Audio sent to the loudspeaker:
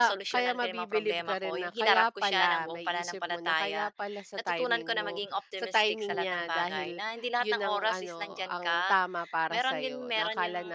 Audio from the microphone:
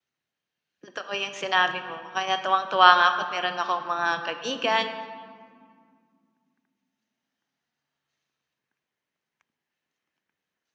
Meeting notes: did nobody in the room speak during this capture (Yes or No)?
No